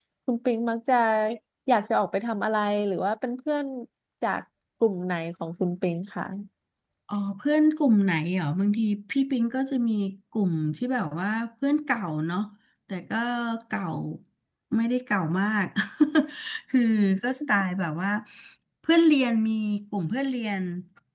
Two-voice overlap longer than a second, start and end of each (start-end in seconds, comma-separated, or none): none